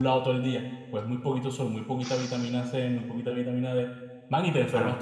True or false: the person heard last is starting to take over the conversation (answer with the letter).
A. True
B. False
B